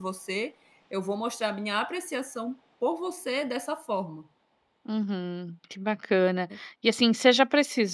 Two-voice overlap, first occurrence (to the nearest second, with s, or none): none